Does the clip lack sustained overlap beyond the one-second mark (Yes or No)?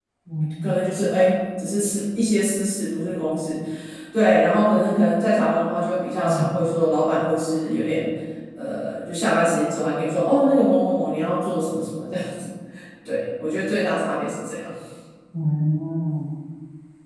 Yes